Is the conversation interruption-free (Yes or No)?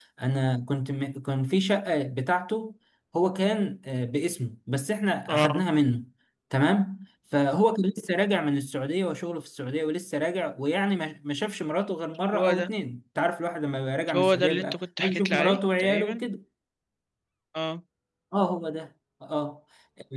No